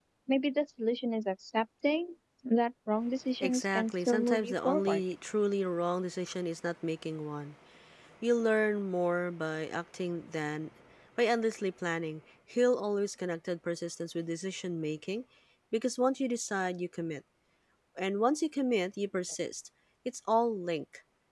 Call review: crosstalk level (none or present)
present